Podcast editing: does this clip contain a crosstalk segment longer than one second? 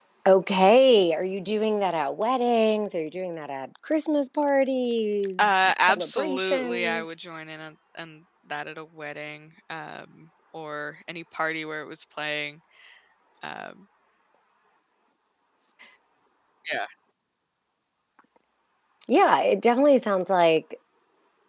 Yes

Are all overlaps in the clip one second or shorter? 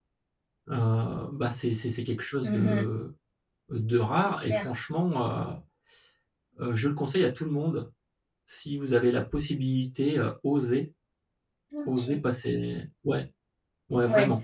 Yes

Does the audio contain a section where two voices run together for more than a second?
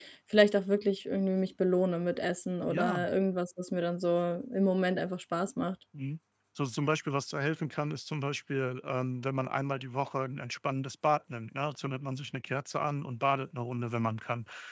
No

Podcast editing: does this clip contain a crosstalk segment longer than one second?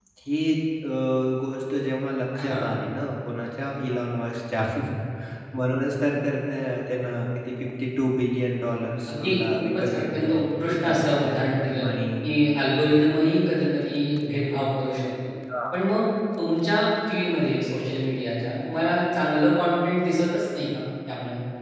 Yes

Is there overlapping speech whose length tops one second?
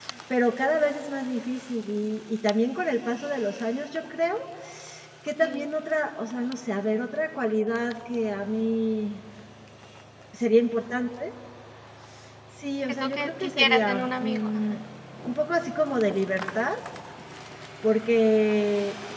Yes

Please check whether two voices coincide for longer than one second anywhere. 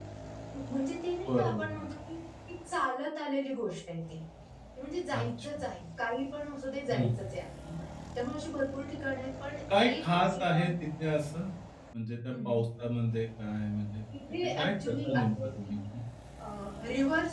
Yes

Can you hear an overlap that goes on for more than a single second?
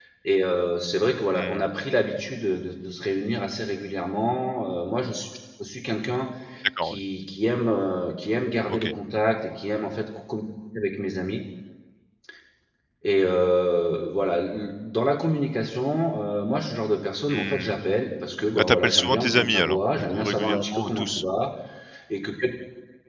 Yes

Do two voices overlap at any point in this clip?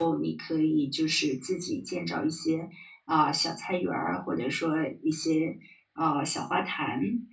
No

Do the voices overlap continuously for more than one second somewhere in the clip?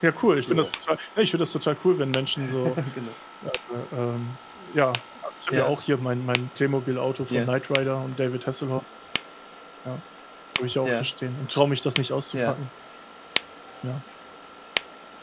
No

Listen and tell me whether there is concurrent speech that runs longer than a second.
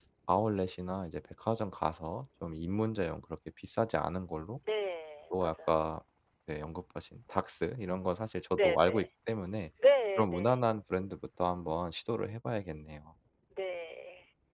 No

